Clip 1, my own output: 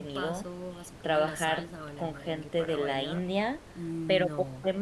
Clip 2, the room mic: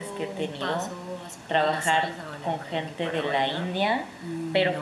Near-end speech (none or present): none